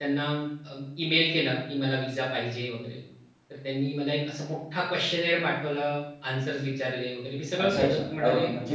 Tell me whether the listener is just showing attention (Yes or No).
No